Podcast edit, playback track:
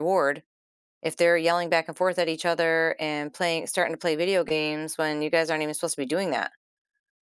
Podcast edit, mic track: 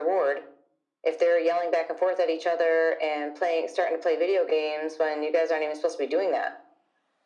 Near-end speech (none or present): none